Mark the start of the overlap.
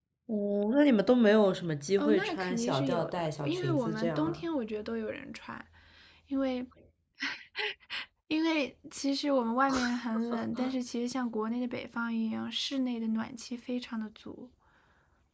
2.0 s

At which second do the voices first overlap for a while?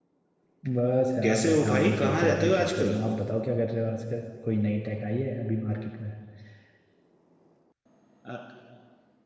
1.2 s

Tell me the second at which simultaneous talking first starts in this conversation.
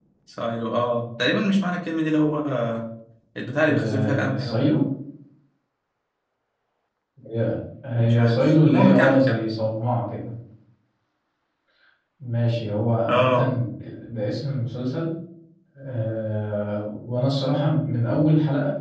3.6 s

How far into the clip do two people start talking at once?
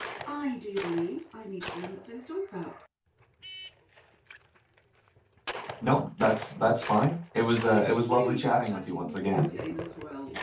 7.7 s

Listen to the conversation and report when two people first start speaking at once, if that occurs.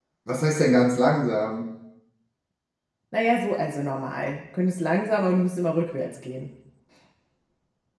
none

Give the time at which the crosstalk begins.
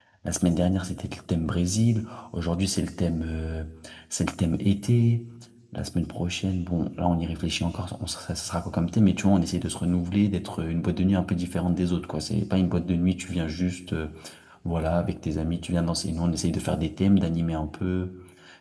none

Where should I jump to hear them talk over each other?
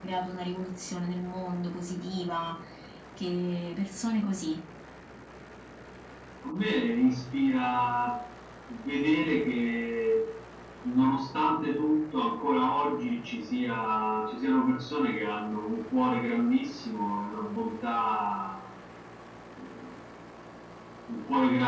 none

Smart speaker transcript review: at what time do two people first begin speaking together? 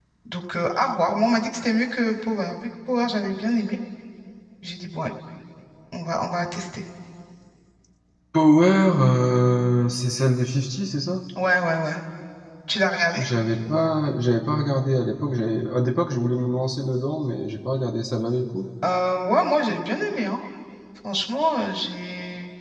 none

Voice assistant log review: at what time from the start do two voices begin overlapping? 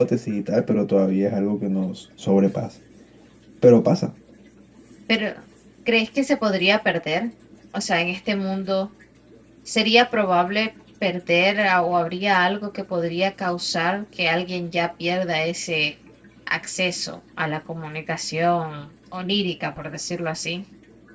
none

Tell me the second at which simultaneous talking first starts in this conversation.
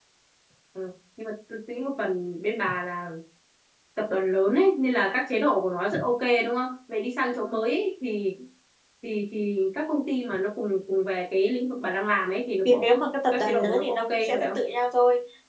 12.7 s

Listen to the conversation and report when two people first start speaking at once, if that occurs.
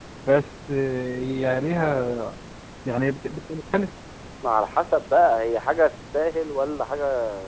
none

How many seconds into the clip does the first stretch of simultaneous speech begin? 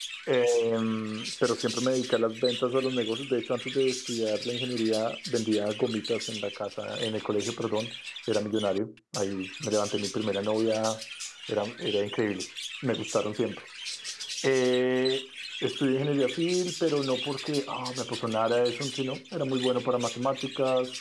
none

